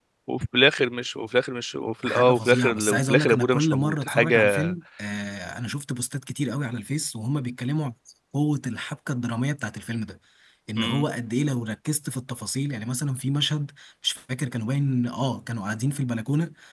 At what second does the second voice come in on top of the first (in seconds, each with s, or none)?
2.0 s